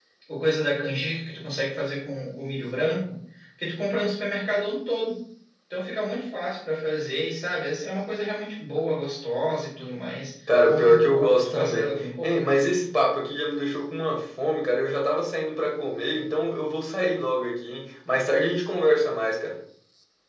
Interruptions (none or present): present